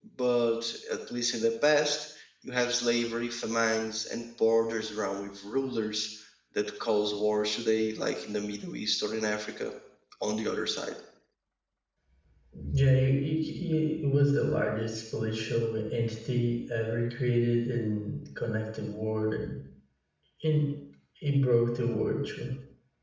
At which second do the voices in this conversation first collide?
none

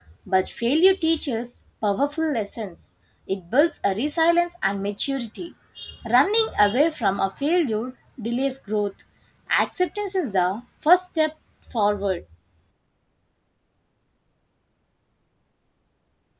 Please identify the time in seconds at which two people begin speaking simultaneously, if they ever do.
none

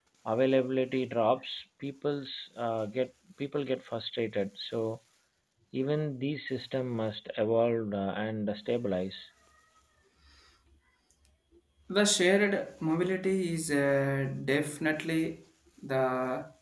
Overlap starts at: none

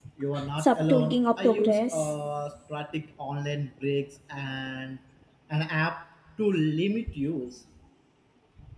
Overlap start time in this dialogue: 1 s

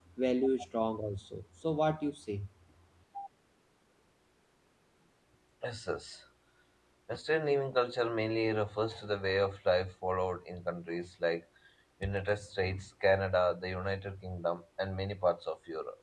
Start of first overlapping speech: none

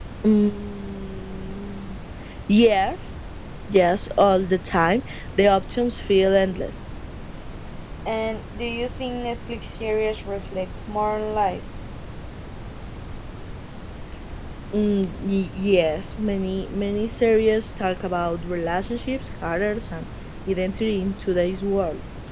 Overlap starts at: none

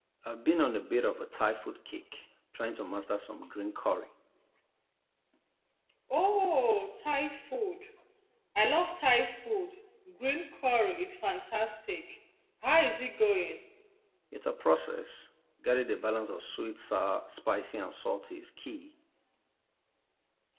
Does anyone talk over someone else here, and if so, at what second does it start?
none

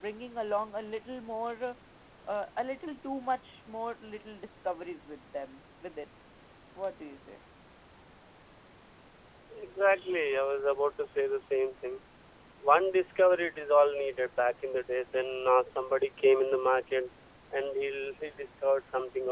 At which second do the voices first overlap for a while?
none

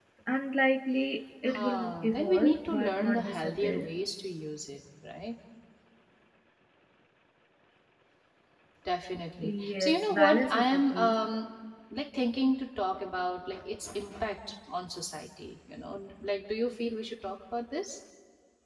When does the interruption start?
1 s

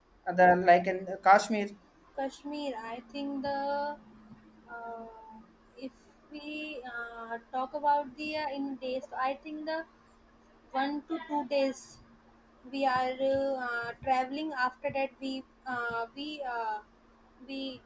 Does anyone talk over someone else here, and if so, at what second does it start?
none

